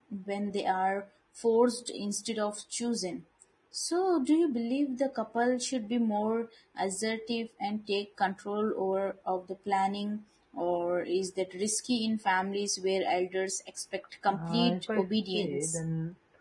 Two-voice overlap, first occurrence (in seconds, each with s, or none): 14.3 s